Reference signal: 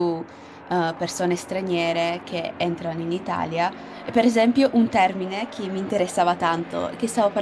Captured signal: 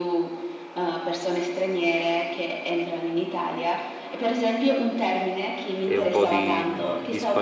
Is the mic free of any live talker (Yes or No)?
No